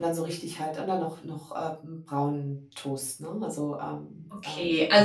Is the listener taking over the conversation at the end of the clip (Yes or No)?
Yes